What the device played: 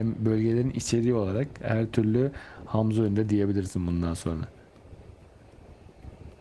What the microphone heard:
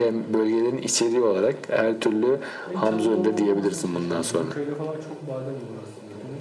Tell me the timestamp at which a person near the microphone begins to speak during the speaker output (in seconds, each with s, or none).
2.6 s